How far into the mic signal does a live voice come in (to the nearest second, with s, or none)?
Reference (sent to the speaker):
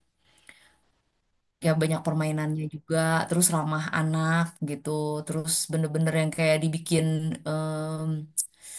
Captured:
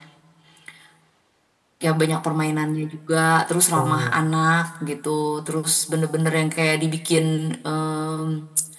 4 s